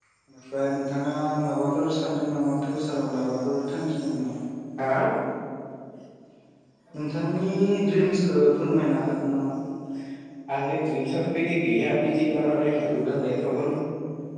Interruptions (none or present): none